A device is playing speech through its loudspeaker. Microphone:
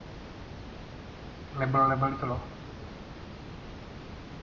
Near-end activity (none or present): present